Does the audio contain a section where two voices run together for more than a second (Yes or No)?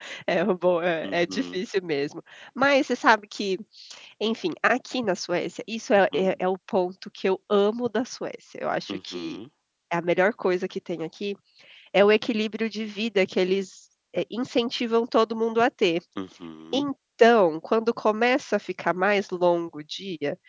No